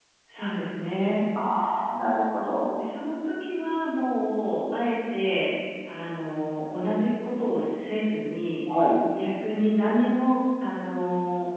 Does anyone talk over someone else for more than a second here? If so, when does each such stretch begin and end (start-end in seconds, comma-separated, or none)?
none